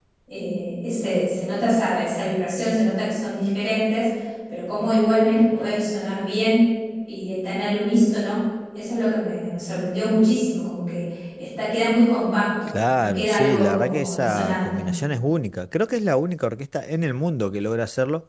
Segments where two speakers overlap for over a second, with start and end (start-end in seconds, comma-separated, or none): 12.7-14.8